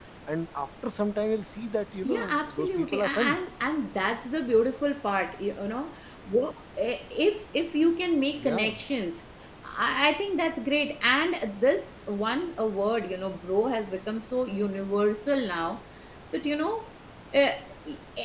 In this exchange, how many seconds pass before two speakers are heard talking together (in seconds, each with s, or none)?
2.0 s